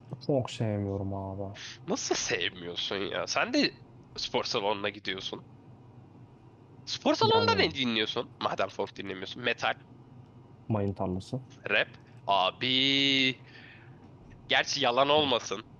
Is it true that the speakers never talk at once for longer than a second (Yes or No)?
Yes